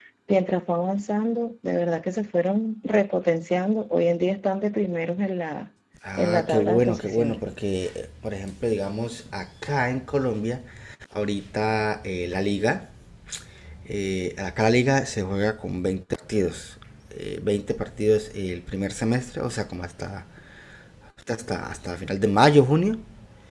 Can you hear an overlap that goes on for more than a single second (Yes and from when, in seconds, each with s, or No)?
Yes, from 6.2 s